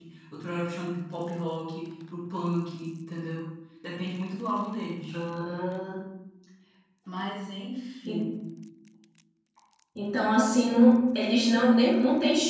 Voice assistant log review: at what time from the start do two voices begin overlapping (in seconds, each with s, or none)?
none